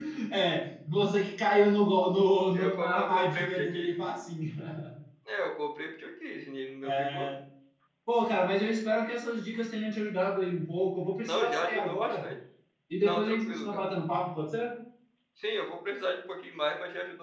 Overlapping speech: Yes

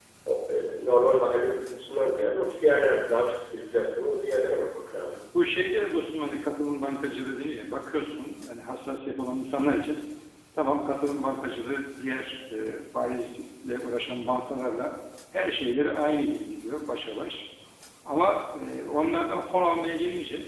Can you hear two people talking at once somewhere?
No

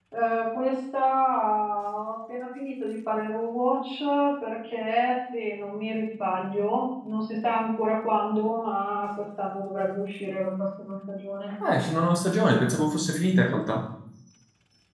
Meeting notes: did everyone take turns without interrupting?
Yes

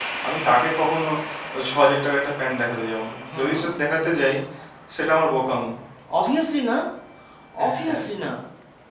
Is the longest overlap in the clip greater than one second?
No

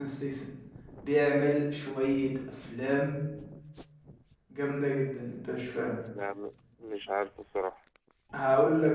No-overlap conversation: Yes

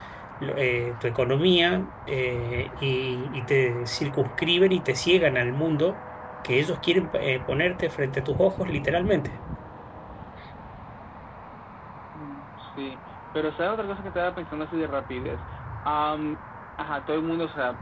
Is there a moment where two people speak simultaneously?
No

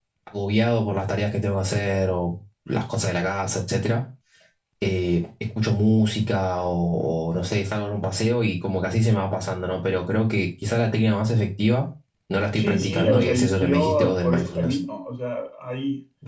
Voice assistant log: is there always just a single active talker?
No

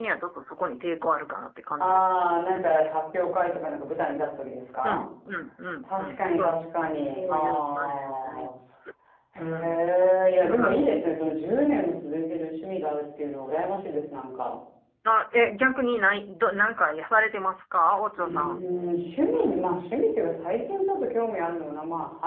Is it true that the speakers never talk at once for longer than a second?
No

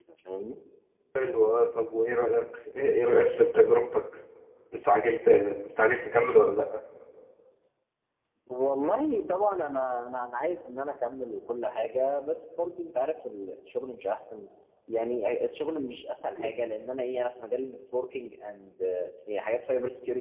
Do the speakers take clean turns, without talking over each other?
Yes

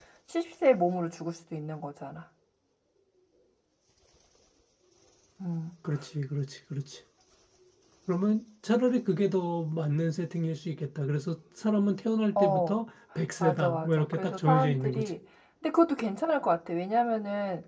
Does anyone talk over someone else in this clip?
Yes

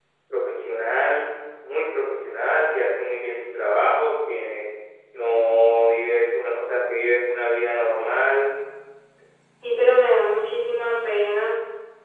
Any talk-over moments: No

